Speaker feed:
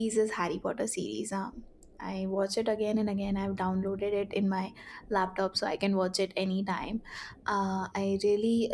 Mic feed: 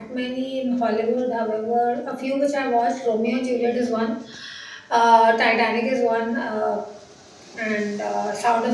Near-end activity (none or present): present